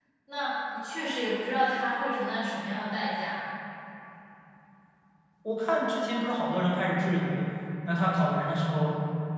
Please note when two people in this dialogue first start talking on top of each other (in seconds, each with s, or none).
none